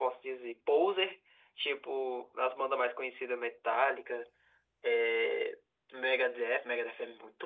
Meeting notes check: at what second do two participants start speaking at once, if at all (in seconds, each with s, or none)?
none